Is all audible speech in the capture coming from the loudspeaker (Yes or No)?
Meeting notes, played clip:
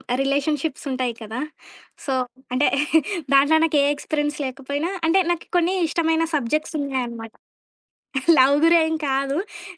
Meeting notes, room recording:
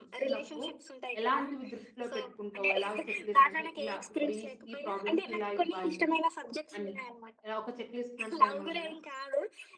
No